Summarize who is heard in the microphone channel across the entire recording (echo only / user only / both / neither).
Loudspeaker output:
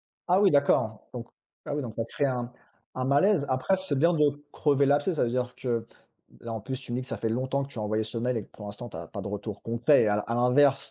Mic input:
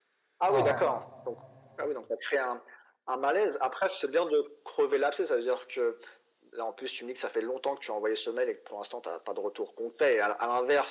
both